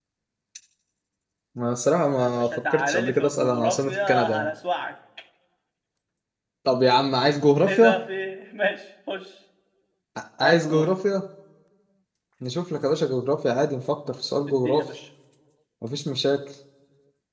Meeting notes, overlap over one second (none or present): present